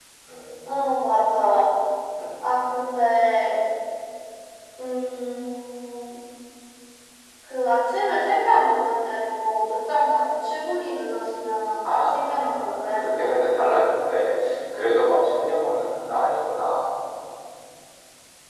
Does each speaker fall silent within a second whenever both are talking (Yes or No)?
No